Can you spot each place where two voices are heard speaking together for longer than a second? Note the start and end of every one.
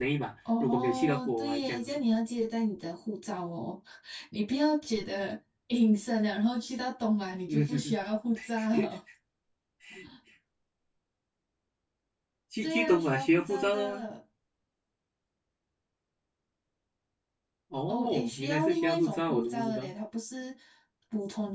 0.6-2.0, 12.6-14.0, 17.9-19.9

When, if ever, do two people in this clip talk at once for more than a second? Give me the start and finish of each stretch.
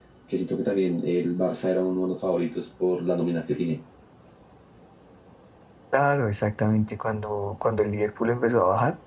none

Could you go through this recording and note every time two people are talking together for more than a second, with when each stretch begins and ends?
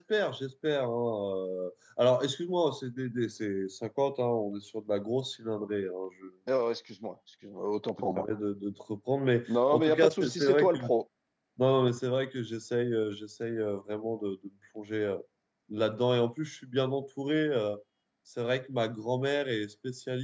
9.5-10.9

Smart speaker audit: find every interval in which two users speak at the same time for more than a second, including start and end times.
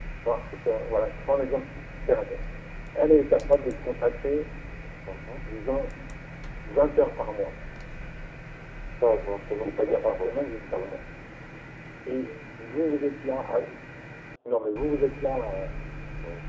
9.6-10.9

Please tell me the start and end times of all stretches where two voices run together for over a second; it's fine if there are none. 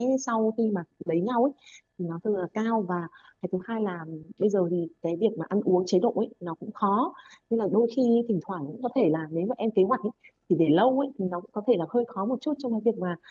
none

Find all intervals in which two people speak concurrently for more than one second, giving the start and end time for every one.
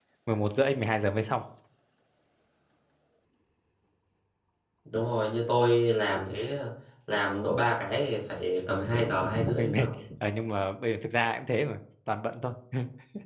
8.7-10.0

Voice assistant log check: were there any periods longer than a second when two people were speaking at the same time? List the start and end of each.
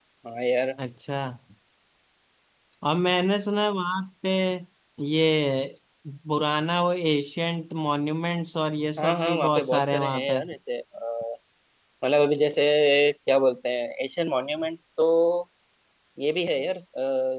9.0-10.4

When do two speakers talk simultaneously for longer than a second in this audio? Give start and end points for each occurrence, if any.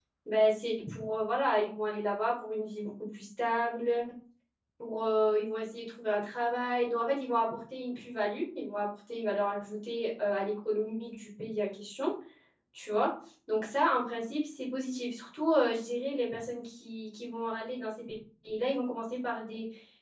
none

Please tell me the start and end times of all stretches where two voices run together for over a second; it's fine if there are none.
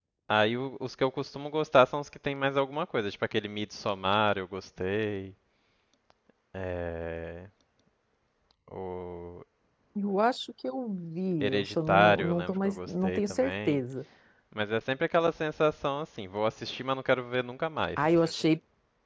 11.4-13.8

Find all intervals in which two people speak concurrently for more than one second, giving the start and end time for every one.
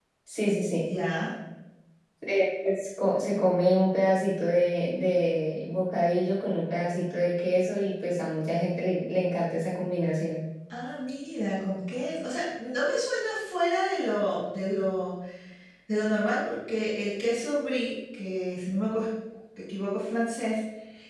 none

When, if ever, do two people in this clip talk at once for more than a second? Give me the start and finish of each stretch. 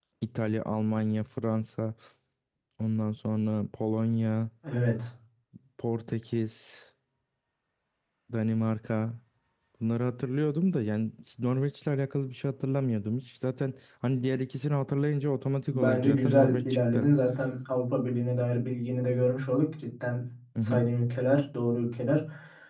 15.7-17.1

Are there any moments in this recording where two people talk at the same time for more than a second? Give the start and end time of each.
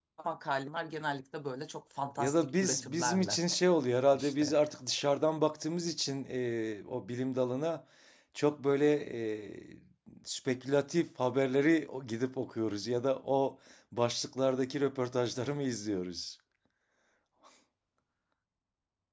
2.2-3.4

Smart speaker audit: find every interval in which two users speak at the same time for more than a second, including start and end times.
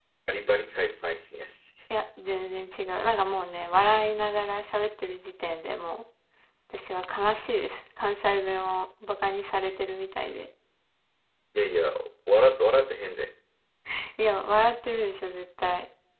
none

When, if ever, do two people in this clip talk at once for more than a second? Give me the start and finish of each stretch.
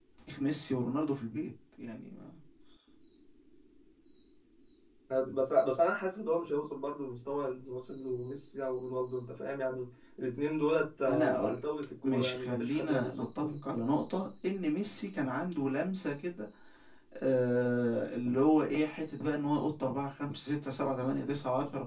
12.0-13.2

